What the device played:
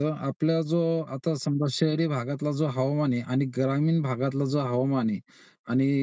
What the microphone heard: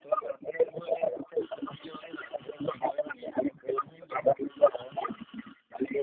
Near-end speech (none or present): none